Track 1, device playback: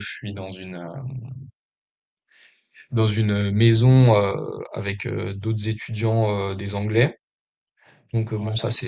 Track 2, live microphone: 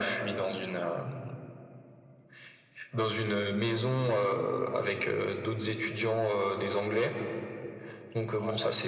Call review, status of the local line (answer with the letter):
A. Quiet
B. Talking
A